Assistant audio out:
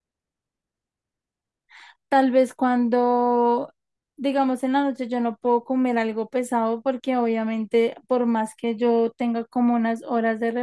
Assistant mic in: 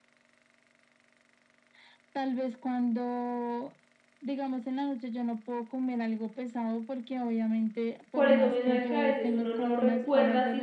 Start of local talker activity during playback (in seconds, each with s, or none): 8.1 s